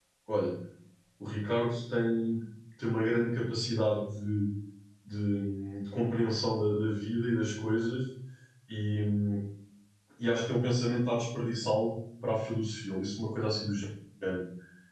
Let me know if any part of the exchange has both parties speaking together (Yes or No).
No